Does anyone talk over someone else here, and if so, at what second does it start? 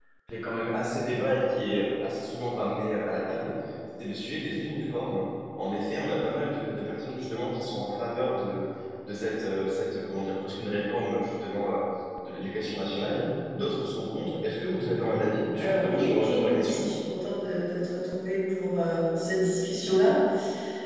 15.6 s

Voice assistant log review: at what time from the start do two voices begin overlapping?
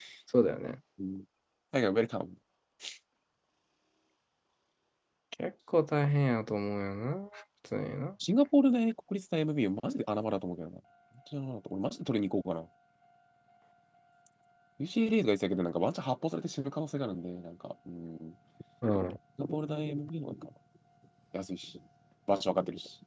none

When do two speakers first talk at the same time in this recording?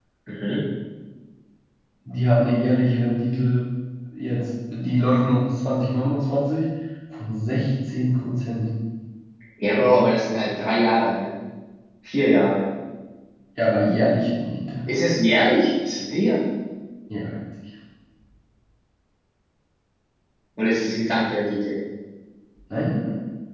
none

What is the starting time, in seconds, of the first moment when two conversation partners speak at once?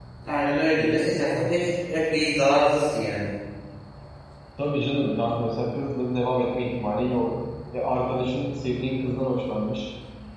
none

